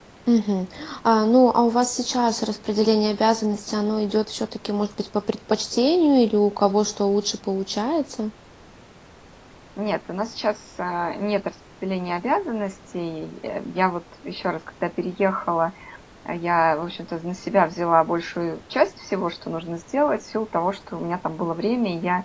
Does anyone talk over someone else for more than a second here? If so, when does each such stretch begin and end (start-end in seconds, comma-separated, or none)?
none